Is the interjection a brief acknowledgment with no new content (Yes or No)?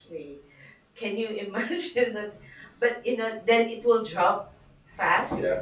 Yes